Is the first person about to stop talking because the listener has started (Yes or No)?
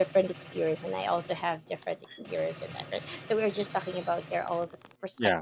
No